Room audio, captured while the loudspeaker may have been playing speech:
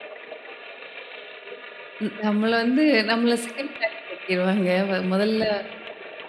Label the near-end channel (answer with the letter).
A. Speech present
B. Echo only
A